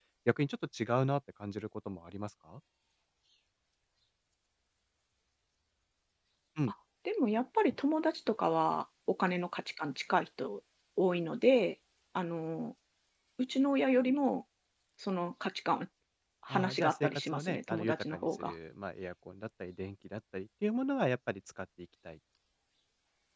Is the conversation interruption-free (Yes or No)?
No